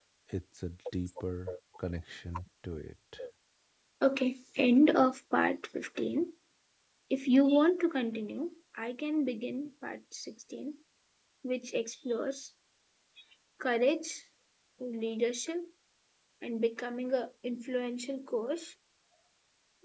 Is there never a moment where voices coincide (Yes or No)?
Yes